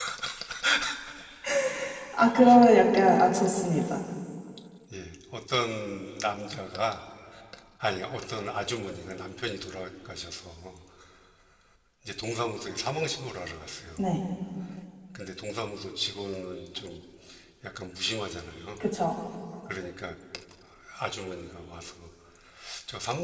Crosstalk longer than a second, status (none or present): none